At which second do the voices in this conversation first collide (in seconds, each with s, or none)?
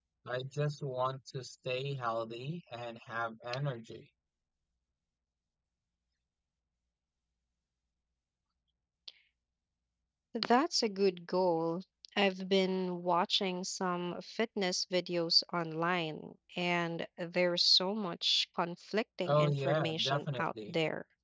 19.3 s